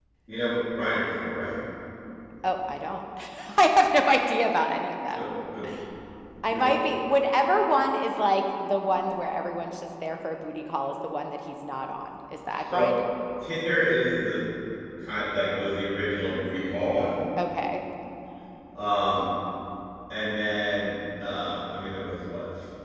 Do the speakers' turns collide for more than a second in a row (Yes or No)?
No